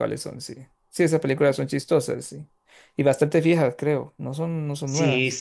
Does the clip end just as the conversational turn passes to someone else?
Yes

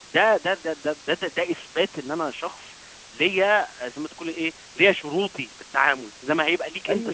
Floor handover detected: Yes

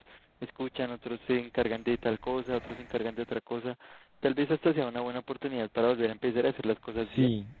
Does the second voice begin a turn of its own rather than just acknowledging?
Yes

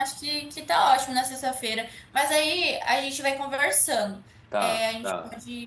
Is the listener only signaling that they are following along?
Yes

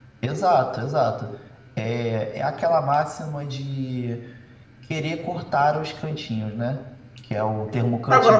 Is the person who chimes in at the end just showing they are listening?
No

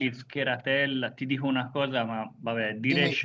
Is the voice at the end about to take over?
No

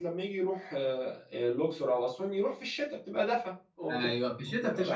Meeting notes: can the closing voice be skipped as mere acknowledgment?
No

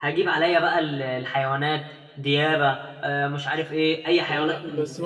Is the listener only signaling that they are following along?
No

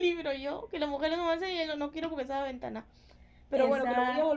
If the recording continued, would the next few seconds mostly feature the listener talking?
No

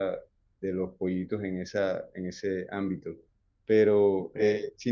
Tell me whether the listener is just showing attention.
Yes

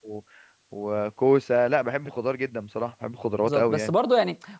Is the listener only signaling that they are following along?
No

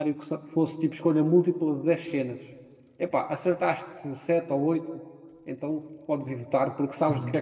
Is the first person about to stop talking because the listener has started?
Yes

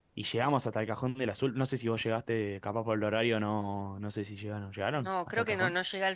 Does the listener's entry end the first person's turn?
Yes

